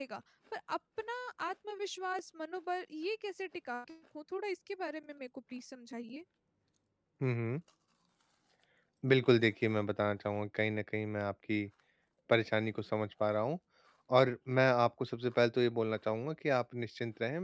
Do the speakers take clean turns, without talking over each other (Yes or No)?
Yes